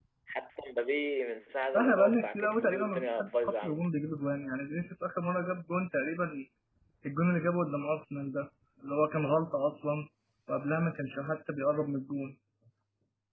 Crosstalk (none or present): present